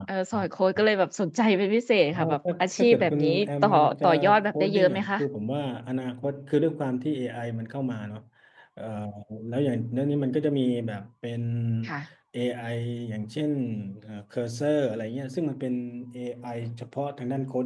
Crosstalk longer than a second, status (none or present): present